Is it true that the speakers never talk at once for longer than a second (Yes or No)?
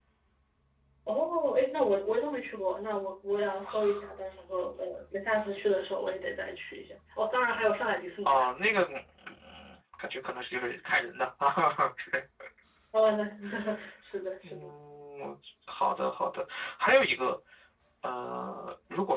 Yes